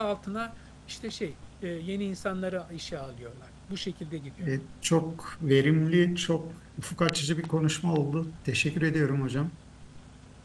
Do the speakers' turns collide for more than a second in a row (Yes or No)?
No